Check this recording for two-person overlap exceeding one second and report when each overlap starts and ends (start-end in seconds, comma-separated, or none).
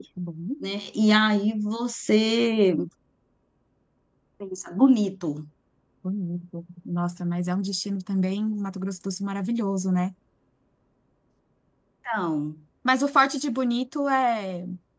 none